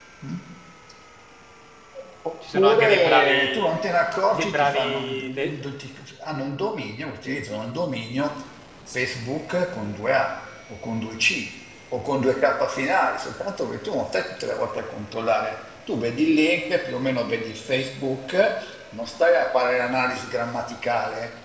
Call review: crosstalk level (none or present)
present